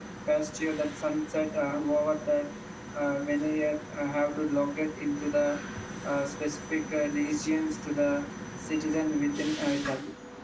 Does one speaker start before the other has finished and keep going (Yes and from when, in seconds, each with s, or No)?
No